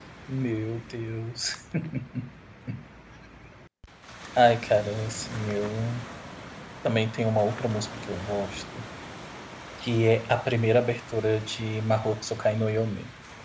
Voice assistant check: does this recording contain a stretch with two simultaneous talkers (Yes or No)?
No